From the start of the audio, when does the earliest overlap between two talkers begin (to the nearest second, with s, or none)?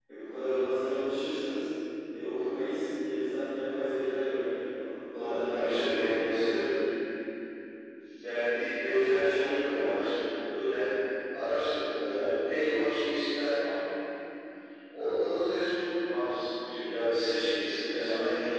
5 s